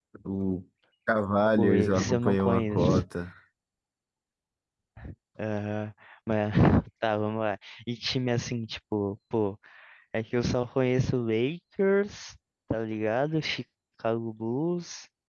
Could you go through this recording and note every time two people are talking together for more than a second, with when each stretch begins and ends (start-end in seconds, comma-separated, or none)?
1.6-3.0